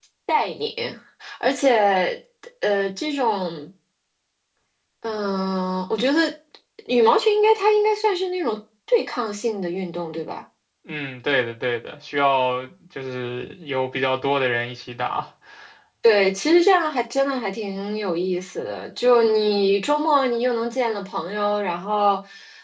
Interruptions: none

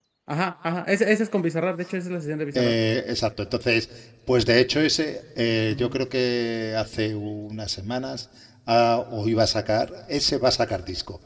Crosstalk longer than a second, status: none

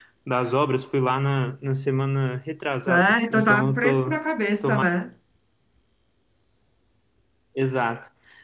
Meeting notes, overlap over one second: present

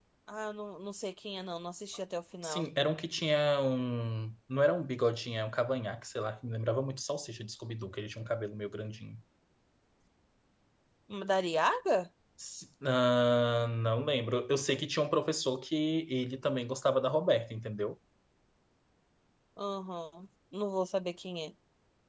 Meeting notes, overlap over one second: none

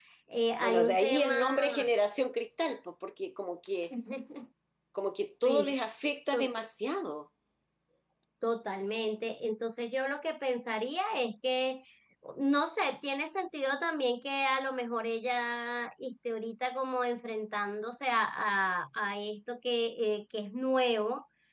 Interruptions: present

